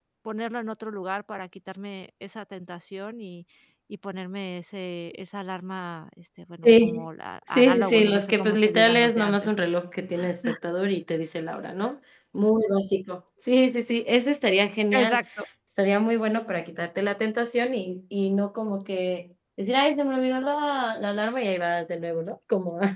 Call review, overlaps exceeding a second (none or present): present